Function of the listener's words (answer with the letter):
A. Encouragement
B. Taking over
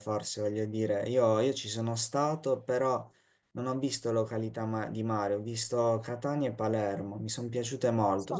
A